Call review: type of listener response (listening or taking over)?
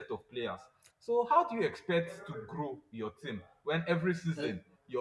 listening